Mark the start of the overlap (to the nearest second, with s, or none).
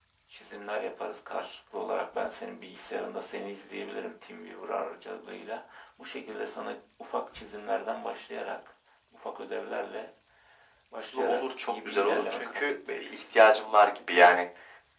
11 s